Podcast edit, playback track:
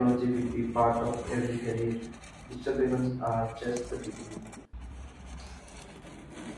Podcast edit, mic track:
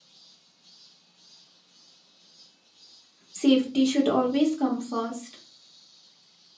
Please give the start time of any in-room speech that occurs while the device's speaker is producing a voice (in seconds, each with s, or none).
3.3 s